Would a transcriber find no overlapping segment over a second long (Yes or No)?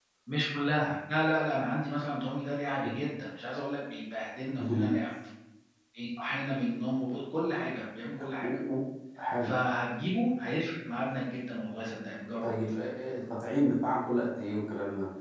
Yes